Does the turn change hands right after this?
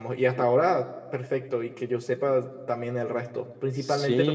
No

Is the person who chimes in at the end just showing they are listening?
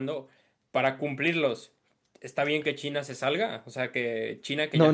No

